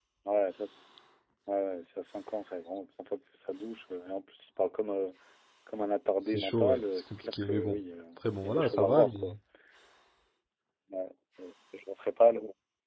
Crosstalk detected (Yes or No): Yes